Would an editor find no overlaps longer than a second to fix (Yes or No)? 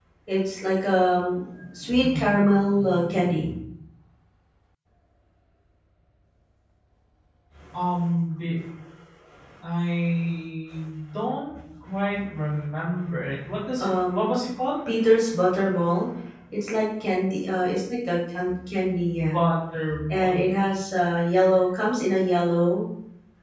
Yes